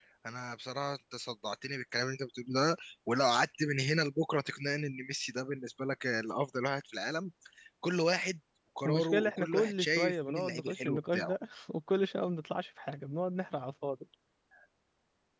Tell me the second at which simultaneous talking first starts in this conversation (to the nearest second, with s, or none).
9 s